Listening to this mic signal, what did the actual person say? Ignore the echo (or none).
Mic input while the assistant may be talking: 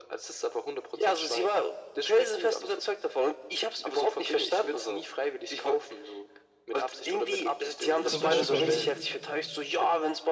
Zum Beispiel bei mir,